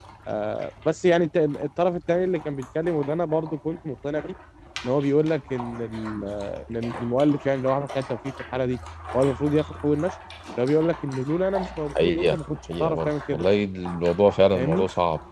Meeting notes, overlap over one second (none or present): present